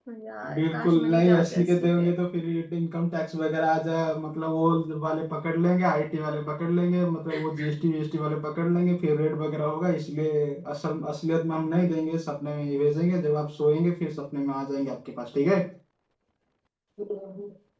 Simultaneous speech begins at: 0.5 s

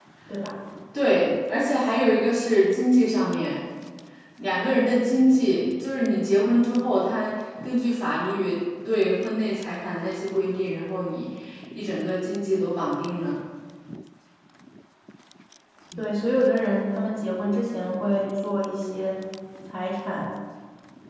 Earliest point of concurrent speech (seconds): none

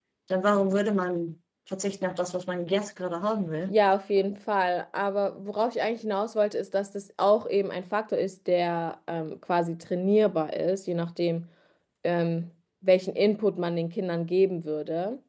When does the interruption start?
none

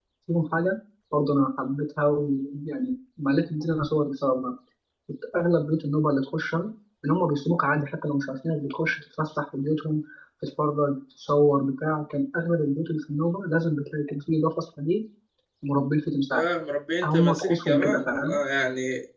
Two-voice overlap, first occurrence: 17.0 s

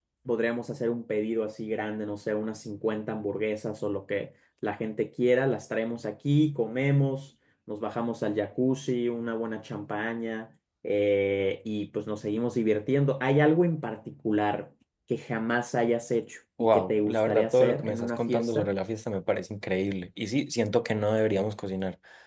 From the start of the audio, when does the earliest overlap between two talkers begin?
16.6 s

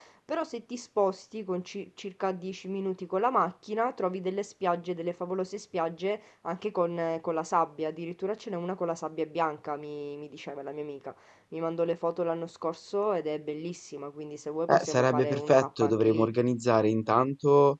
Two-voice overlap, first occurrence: 14.7 s

